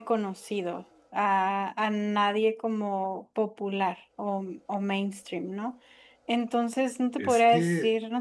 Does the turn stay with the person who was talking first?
Yes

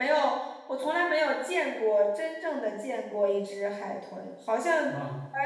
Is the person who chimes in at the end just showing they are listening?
Yes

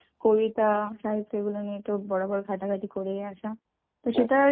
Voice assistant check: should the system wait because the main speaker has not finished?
Yes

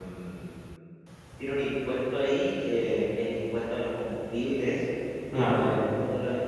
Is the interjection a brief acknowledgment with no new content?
Yes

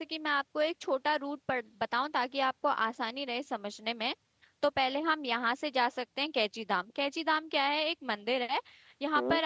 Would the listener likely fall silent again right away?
Yes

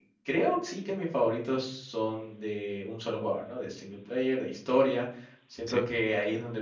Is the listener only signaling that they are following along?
Yes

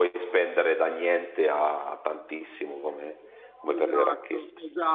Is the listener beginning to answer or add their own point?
Yes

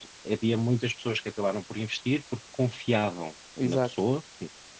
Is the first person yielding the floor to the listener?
No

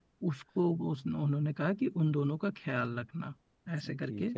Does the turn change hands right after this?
No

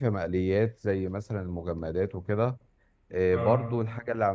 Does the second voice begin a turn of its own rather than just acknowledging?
No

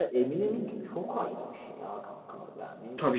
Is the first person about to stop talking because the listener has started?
Yes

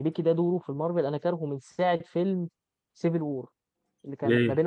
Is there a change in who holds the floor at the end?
No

